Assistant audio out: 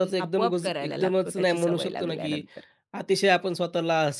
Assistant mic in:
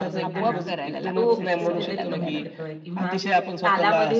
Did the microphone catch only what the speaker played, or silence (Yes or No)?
No